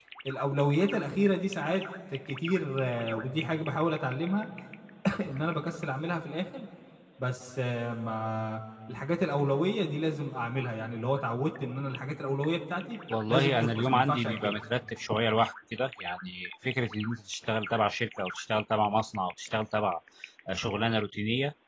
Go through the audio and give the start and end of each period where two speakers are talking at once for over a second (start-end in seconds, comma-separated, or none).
13.3-14.6